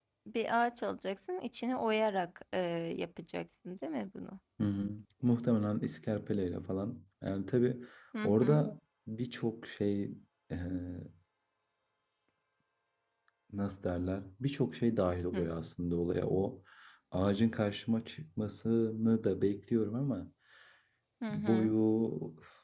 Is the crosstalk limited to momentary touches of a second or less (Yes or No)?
Yes